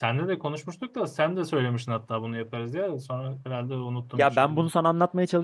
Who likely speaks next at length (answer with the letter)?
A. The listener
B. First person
A